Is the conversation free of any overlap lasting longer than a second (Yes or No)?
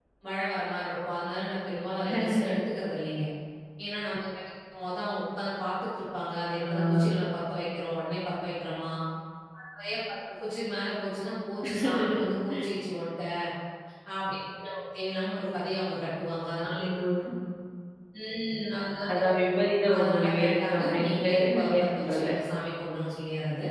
No